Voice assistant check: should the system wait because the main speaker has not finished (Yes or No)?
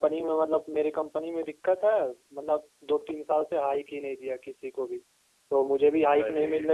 Yes